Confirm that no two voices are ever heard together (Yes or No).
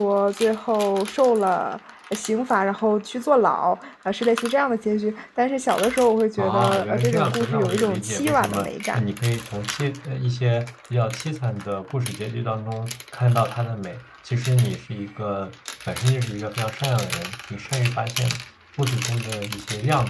No